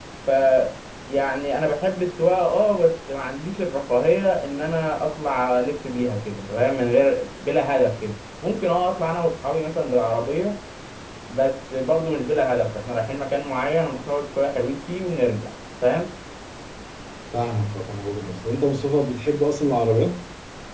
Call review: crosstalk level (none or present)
none